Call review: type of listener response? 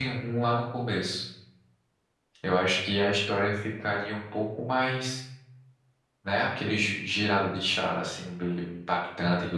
taking over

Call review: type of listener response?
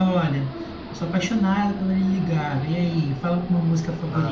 taking over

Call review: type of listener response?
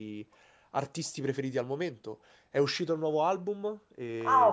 taking over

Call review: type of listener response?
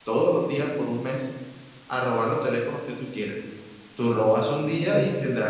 listening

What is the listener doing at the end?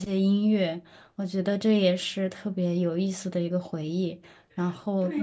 taking over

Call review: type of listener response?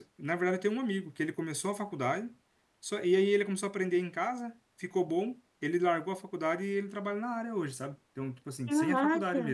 listening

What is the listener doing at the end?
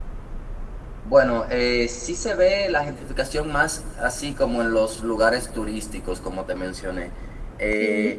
listening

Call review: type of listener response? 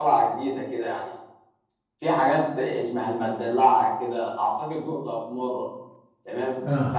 listening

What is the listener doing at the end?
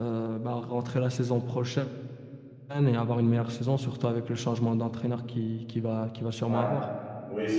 taking over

